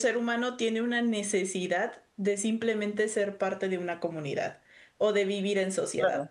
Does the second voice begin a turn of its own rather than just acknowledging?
Yes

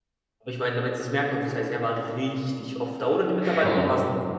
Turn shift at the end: No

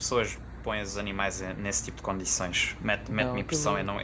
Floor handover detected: No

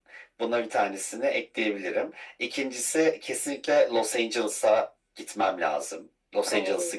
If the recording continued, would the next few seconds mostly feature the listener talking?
Yes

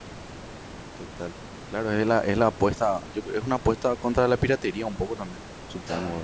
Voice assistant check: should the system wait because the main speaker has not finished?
No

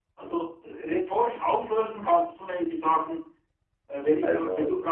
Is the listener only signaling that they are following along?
Yes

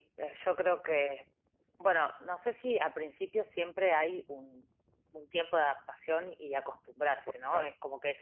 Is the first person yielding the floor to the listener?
No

